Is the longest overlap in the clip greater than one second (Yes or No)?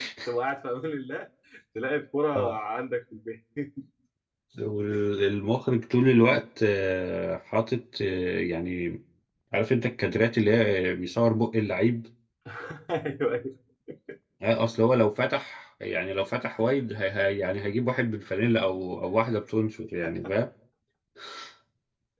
No